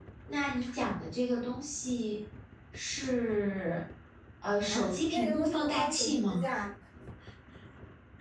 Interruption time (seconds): 4.6 s

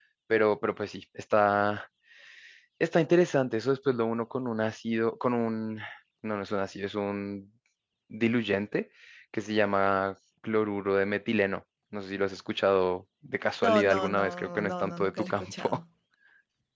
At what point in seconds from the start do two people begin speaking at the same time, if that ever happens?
13.6 s

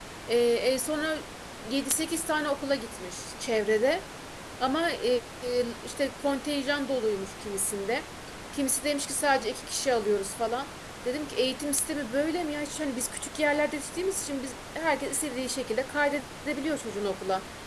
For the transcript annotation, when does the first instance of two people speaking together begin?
none

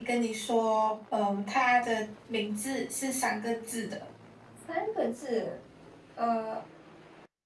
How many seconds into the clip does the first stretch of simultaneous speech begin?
none

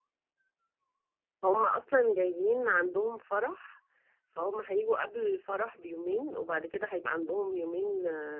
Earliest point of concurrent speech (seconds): none

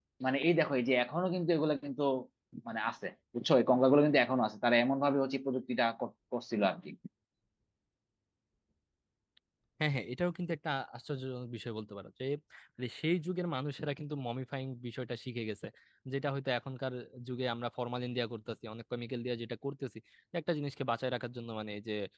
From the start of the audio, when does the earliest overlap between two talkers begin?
none

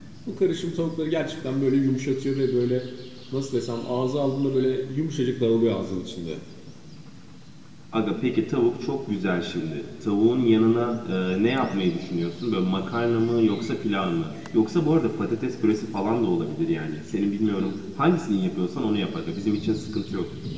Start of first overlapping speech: none

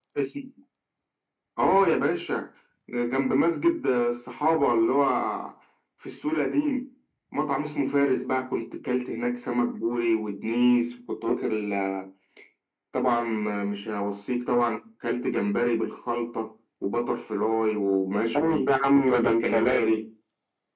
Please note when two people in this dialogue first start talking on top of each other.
18.3 s

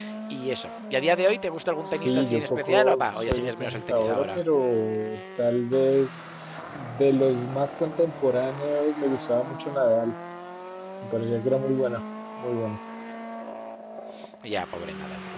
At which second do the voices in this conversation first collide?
1.8 s

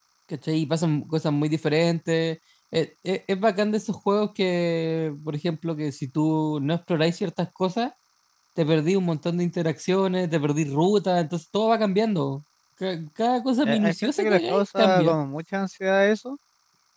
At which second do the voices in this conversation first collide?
13.6 s

